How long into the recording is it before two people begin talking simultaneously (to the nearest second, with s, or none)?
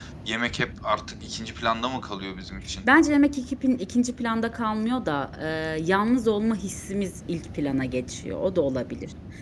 none